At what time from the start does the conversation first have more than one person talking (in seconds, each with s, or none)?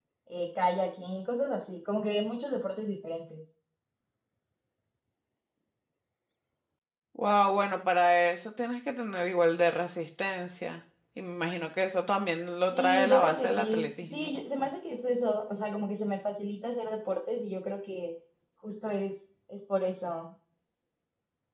12.7 s